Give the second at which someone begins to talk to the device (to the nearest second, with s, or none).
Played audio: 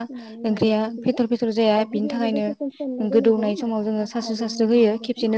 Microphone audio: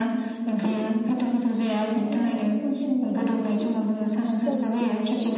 4 s